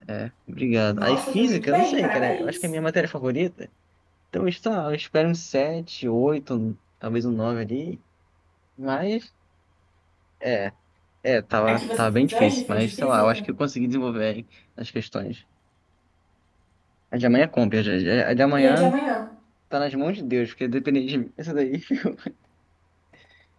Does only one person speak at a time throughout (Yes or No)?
No